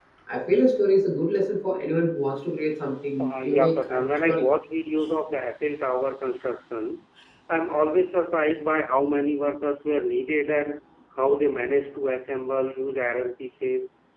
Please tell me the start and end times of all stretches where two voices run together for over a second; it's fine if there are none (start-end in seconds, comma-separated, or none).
3.2-4.4